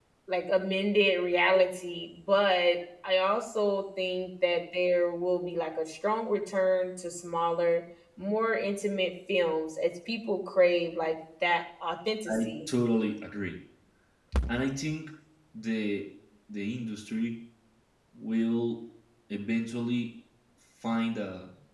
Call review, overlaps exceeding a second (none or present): none